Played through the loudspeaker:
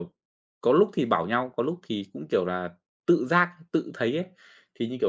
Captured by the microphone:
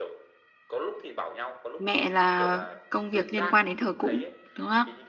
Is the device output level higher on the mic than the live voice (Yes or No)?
No